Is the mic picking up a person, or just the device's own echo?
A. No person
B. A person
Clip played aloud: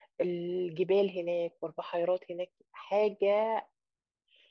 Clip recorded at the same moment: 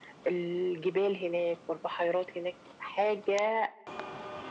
A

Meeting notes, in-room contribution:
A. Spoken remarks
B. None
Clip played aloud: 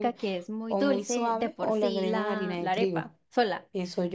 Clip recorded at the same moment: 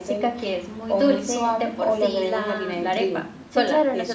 A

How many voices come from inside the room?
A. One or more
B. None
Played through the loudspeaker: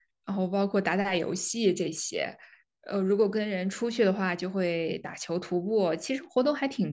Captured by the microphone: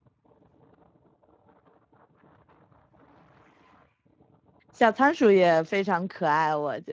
A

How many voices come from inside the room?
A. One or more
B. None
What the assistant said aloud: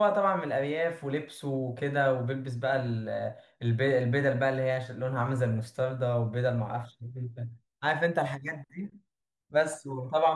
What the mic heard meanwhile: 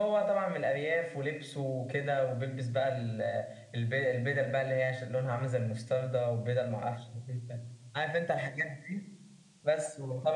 B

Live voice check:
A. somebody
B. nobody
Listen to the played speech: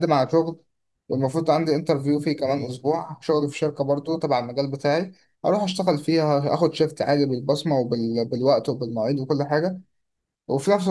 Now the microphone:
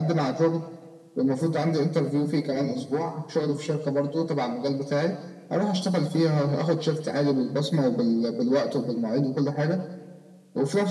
B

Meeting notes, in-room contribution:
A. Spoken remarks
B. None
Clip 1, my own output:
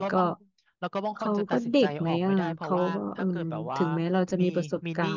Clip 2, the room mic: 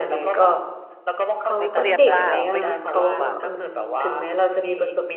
A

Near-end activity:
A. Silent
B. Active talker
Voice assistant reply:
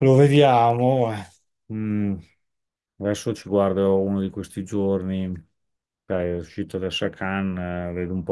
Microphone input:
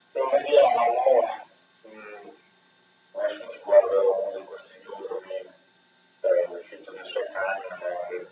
A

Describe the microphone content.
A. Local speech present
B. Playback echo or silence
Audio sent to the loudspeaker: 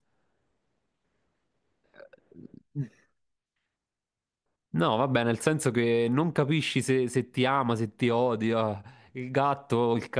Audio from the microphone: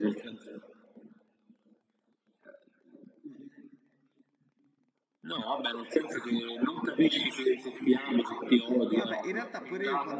A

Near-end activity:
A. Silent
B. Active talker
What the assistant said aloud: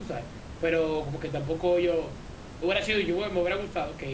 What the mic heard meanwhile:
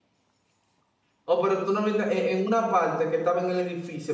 B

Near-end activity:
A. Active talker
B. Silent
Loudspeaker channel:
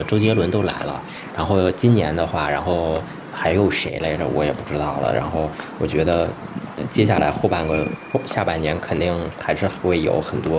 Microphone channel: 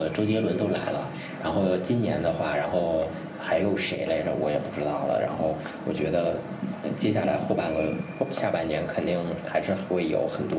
B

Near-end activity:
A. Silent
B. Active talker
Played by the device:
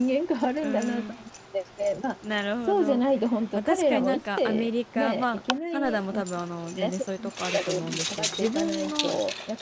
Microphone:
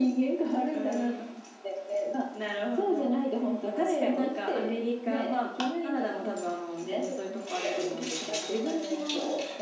A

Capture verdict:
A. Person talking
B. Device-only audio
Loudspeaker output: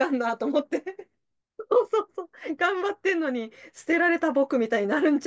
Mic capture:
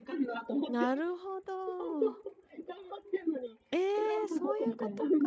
A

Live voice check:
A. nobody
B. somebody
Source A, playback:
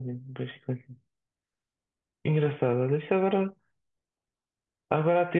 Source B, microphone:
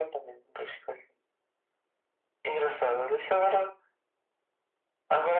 A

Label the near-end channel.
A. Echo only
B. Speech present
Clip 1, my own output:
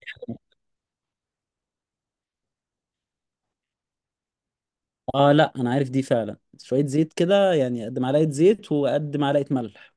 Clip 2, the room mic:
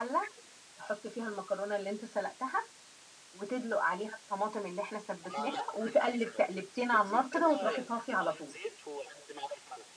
B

